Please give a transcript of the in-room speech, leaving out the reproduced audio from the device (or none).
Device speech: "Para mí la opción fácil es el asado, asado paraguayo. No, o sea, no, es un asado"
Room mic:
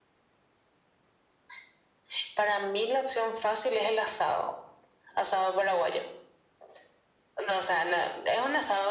none